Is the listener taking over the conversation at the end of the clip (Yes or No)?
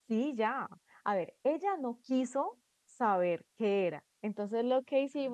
No